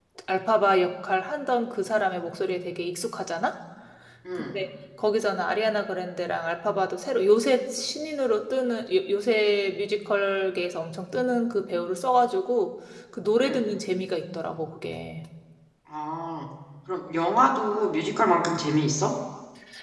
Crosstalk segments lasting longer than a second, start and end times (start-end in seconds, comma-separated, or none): none